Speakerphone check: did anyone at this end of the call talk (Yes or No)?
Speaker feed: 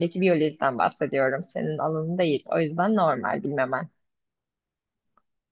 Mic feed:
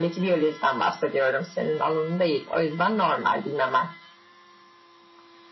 No